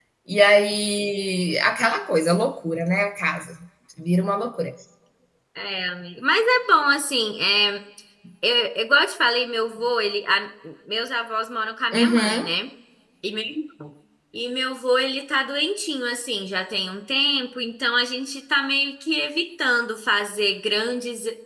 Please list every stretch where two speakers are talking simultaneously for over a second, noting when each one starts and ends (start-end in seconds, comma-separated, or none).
none